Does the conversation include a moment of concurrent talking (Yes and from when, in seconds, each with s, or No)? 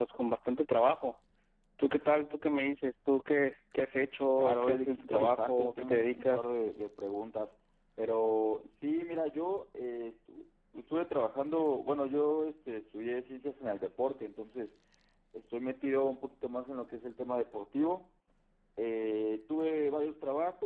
Yes, from 4.3 s